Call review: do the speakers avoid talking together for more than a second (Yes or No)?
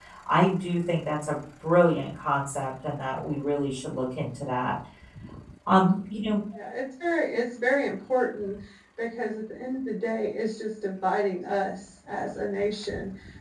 Yes